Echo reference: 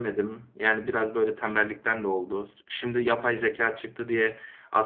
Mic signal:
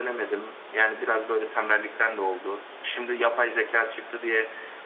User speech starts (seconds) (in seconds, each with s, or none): none